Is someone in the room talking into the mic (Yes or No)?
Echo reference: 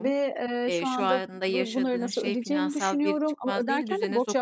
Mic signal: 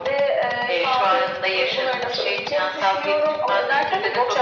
No